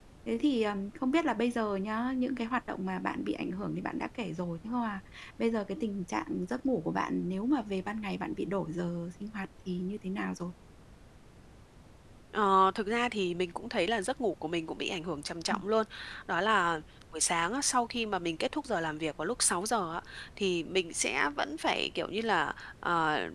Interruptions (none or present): none